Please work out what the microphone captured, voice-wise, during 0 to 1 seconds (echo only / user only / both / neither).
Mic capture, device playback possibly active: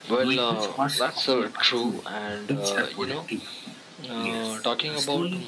echo only